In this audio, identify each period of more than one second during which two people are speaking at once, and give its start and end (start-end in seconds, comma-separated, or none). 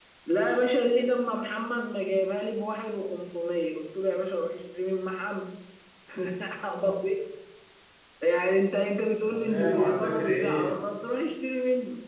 9.2-10.7